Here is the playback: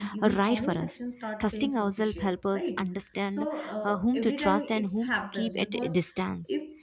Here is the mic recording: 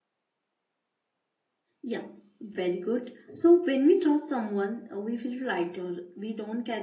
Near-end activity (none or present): present